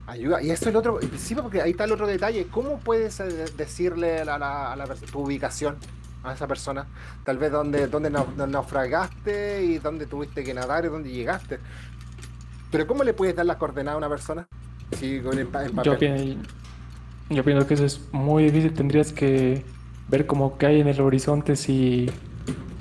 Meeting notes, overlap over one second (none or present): none